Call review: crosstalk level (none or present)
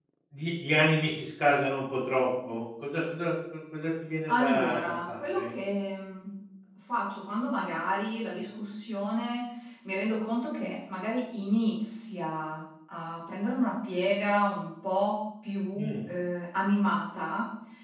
present